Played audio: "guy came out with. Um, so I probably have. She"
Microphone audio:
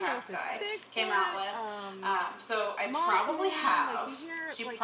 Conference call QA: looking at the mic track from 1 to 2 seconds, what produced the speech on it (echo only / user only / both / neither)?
both